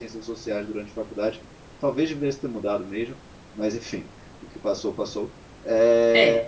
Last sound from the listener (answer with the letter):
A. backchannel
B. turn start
A